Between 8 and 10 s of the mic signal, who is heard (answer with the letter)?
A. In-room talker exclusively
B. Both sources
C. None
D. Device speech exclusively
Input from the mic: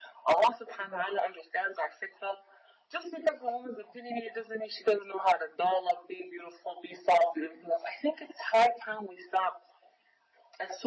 D